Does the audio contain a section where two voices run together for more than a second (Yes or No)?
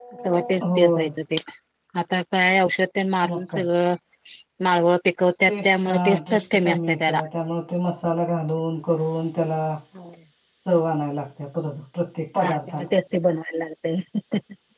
Yes